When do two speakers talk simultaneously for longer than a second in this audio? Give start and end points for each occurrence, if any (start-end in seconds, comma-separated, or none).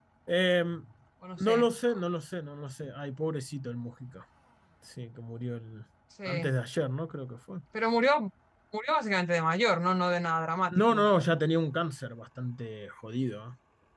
none